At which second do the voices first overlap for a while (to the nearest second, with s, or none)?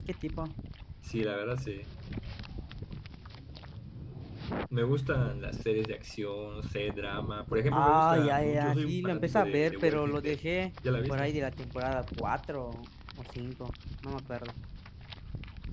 8 s